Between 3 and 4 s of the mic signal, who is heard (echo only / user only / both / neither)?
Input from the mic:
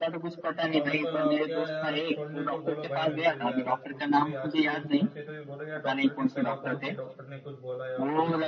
both